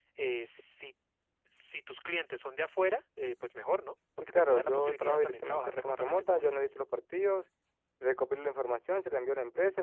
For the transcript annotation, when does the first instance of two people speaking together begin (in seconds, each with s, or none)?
4.2 s